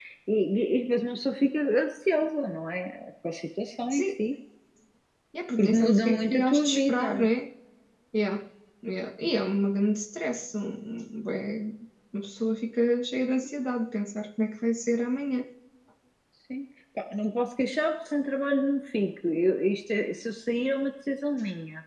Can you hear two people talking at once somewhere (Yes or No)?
Yes